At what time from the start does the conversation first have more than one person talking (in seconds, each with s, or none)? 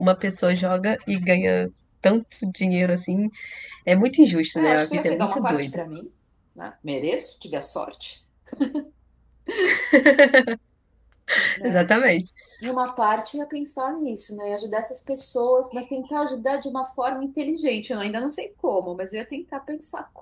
4.6 s